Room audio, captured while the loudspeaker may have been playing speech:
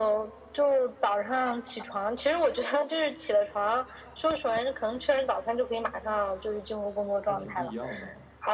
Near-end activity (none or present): present